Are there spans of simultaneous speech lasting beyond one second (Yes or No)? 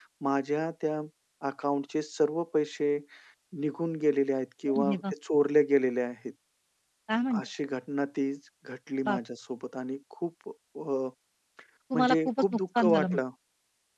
Yes